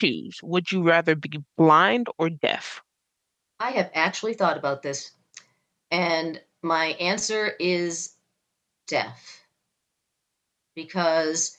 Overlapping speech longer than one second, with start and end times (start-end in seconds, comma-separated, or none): none